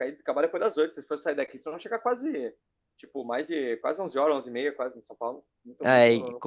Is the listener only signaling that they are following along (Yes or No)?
No